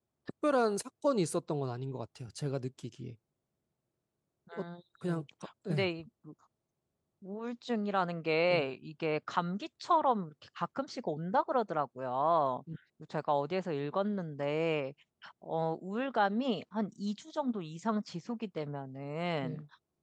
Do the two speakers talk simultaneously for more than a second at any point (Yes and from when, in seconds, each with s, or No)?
No